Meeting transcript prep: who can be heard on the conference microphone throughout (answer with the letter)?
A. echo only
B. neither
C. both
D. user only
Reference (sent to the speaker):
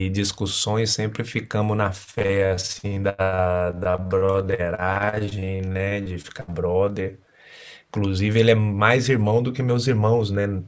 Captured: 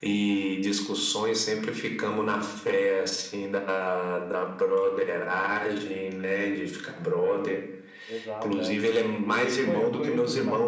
C